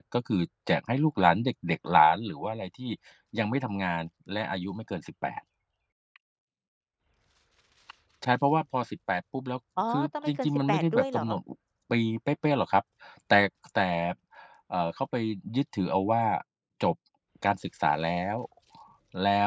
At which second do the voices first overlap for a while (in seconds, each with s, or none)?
9.8 s